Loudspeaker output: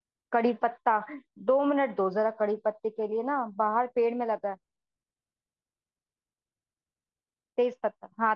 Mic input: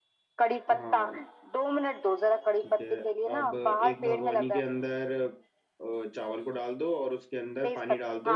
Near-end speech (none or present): present